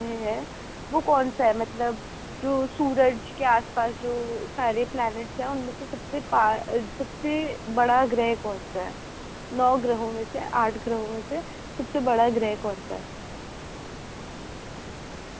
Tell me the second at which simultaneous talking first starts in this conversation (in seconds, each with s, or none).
none